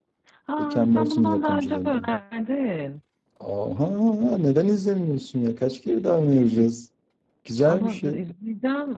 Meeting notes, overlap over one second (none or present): present